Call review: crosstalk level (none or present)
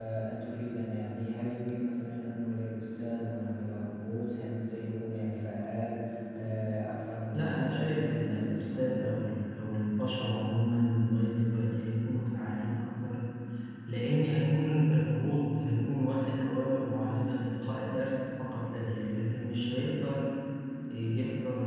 present